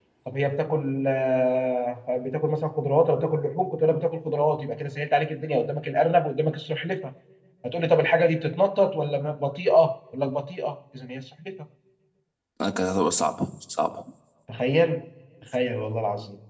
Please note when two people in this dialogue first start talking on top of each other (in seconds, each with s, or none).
none